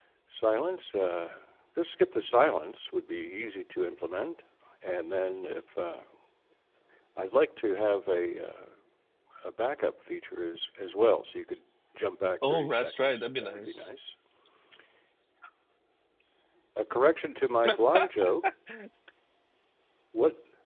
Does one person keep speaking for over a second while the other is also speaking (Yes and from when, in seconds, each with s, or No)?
Yes, from 12.5 s